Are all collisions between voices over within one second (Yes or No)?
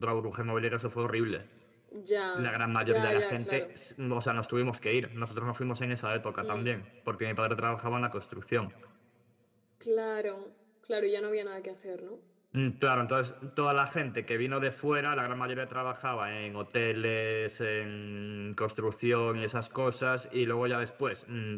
No